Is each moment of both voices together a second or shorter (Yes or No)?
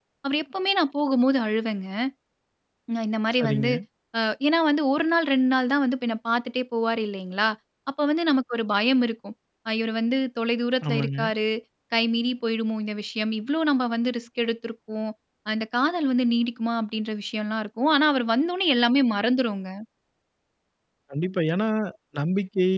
Yes